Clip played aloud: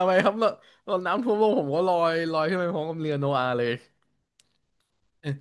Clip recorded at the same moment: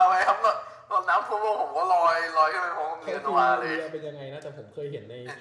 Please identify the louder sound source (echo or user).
echo